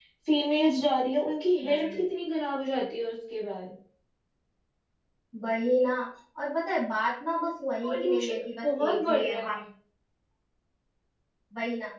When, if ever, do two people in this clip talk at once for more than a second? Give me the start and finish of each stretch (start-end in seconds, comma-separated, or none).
7.8-9.5